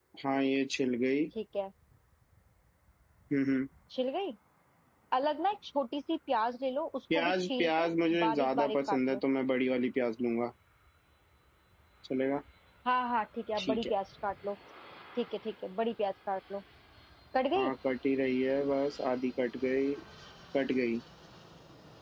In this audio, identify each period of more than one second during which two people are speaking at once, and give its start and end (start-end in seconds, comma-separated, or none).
7.1-9.2